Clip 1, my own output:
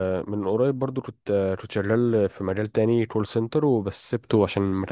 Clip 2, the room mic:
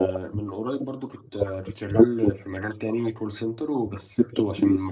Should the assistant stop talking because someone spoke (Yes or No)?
No